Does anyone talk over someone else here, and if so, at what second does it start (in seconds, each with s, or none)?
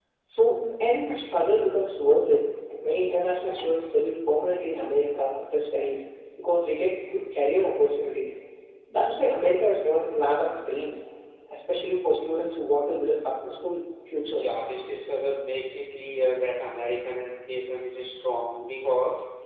none